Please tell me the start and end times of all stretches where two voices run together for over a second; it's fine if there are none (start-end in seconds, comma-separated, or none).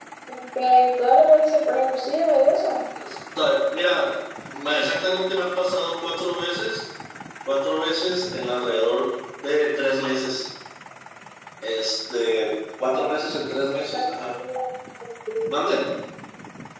none